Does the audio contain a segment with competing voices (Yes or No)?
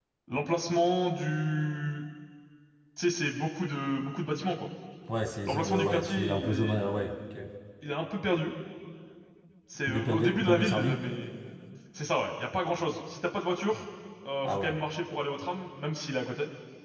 Yes